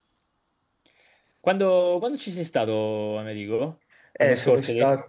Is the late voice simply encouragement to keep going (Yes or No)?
No